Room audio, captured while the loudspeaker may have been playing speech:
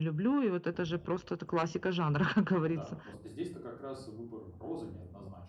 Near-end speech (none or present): present